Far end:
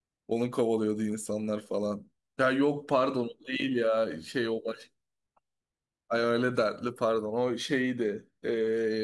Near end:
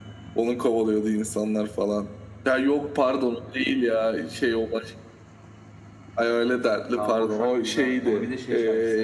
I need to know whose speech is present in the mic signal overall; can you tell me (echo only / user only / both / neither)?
both